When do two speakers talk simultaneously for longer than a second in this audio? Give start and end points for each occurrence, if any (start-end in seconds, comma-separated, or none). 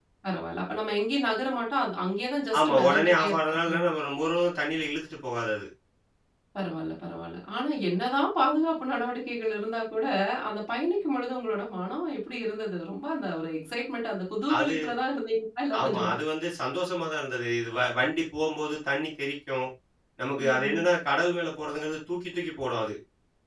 2.6-3.9